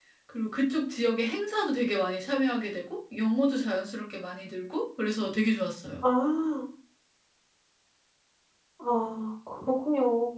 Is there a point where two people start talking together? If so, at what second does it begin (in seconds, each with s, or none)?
none